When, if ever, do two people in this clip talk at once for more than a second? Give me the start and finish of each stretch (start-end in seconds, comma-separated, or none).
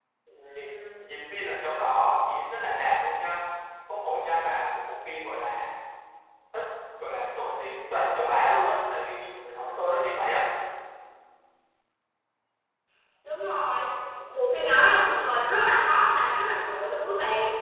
none